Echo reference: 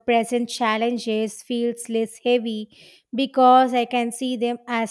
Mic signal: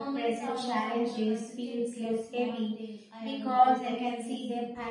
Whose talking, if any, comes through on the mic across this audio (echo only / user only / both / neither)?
both